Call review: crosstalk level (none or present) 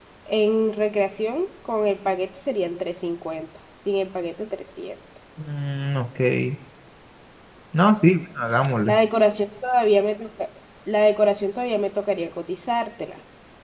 none